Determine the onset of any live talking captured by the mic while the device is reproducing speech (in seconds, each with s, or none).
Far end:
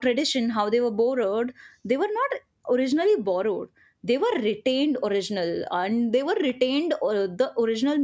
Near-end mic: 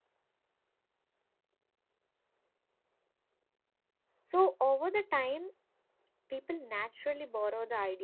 4.2 s